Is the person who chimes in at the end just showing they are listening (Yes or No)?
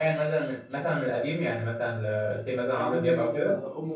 No